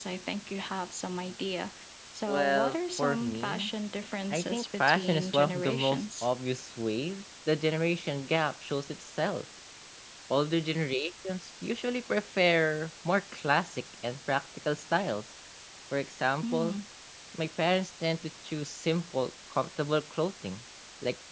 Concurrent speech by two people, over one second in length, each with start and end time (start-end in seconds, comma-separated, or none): 2.2-3.7, 4.3-6.3